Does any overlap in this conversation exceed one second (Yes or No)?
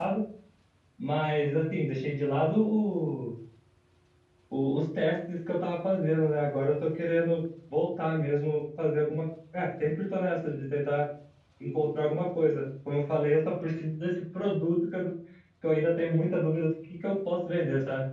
No